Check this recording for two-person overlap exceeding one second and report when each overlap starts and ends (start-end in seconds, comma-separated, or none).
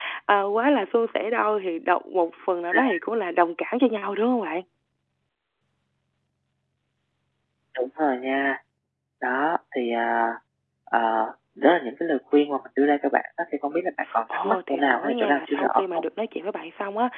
14.4-16.0